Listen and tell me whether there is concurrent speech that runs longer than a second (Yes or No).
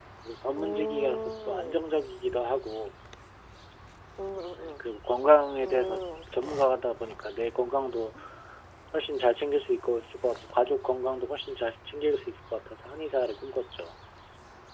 Yes